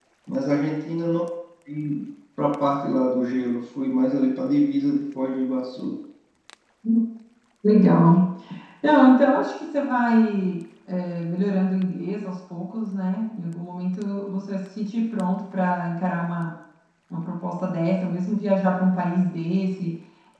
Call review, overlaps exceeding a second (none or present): none